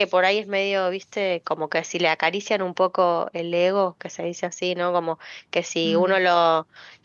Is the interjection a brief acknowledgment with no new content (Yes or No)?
Yes